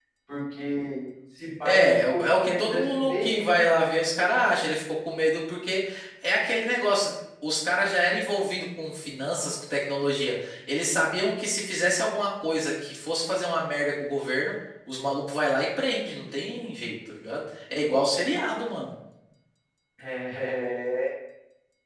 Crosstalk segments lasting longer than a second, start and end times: 1.6-3.6

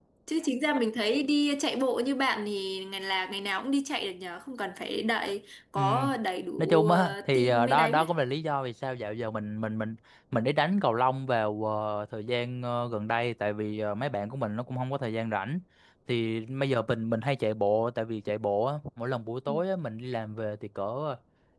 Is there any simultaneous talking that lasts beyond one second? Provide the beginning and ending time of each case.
6.6-8.1

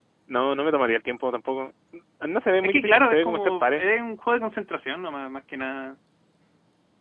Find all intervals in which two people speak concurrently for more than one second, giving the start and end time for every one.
2.6-3.9

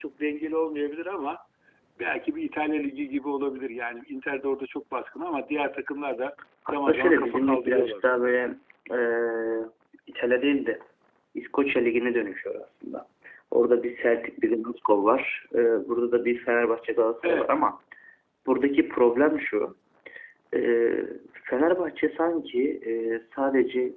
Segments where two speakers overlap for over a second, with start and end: 6.7-8.0

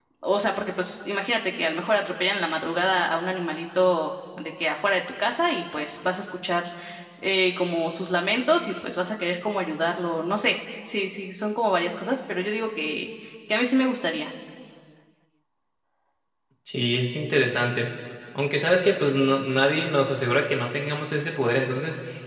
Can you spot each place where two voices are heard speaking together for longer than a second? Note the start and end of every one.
none

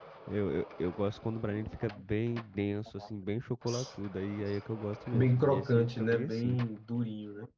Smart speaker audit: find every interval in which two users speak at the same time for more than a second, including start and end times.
5.1-6.6

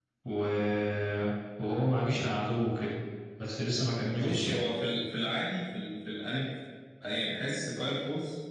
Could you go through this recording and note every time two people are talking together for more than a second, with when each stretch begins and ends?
none

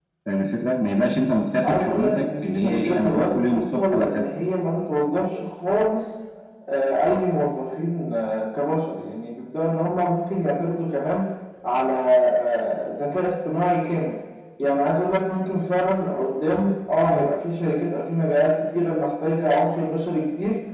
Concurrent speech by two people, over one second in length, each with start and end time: 1.6-4.3

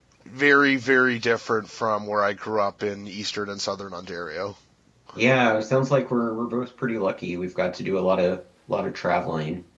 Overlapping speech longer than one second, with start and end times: none

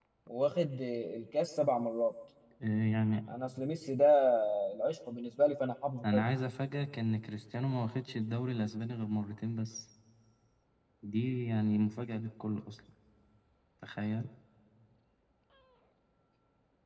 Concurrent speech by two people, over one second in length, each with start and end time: none

